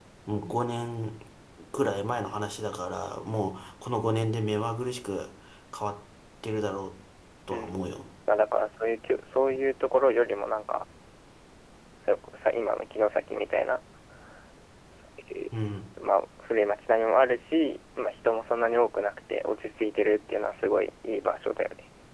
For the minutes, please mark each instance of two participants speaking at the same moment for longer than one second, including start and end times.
none

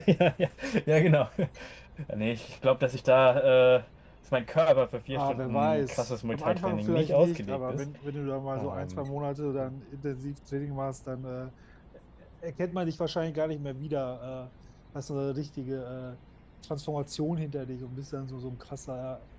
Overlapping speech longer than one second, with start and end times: 5.1-7.8

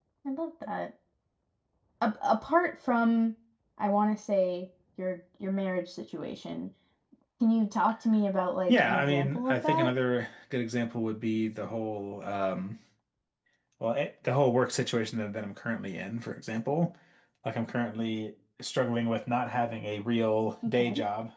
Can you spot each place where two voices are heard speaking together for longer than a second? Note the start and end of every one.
8.7-9.9

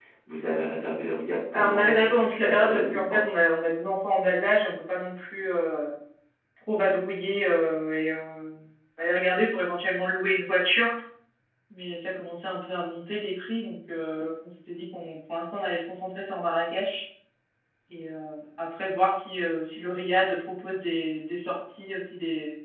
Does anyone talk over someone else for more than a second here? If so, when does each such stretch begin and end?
1.5-3.2

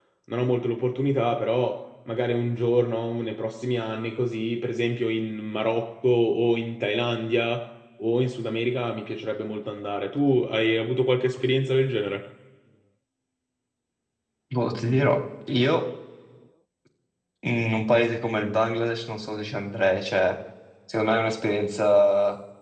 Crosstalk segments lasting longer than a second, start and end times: none

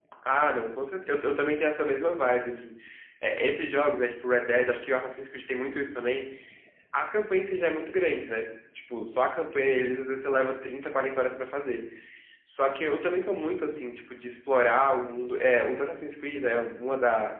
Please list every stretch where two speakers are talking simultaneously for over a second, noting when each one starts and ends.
none

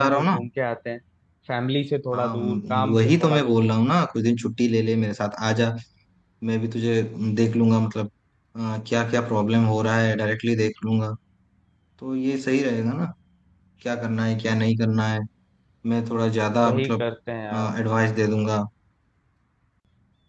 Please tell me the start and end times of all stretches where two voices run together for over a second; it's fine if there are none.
2.1-3.6

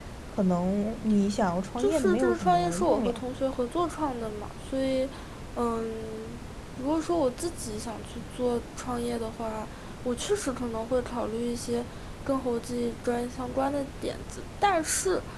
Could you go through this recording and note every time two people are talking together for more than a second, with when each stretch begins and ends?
1.8-3.2

